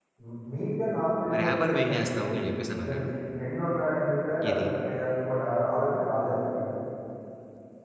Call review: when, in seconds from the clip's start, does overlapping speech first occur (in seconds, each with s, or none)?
1.3 s